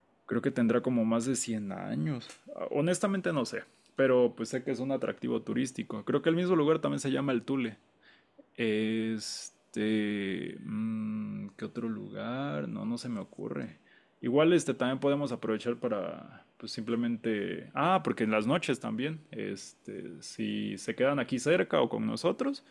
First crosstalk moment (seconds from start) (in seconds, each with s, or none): none